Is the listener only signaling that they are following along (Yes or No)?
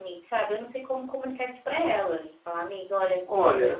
No